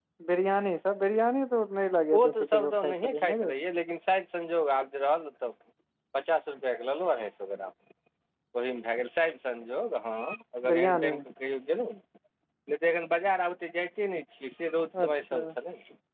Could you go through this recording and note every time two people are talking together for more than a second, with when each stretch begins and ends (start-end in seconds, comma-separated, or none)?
2.2-3.5